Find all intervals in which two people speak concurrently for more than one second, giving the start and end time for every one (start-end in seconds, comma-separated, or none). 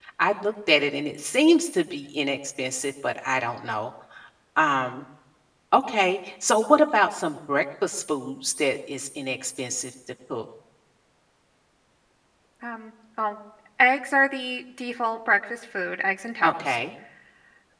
none